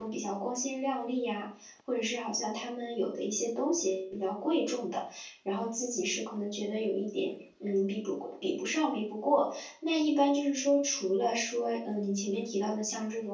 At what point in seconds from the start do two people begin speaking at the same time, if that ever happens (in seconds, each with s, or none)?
none